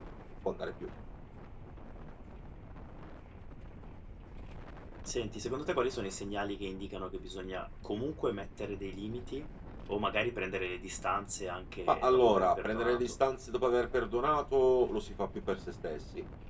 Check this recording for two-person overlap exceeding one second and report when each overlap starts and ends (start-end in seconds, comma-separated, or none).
11.9-13.2